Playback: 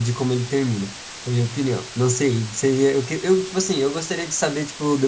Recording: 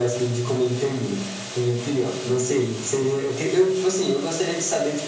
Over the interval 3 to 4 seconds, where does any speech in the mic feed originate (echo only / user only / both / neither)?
echo only